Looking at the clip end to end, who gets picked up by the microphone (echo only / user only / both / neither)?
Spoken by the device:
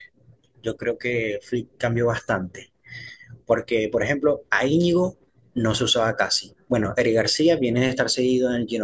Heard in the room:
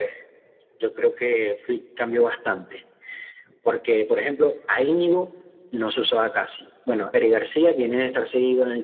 echo only